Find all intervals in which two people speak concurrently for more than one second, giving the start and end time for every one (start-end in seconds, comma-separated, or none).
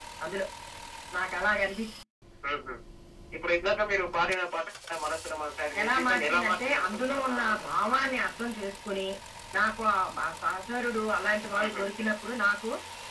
5.8-7.6